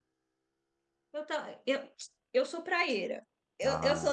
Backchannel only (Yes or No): Yes